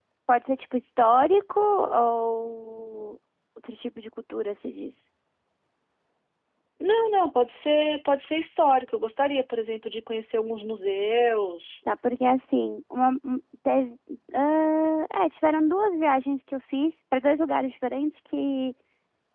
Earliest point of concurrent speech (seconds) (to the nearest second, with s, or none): none